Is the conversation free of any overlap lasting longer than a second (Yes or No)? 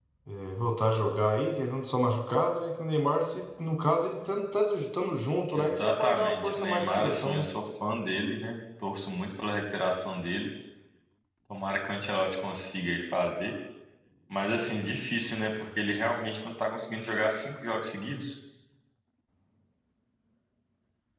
No